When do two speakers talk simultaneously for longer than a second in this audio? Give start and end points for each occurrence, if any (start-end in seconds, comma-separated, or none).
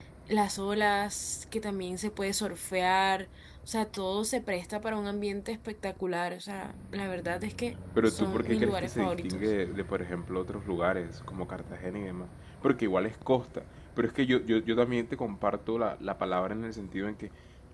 8.1-9.5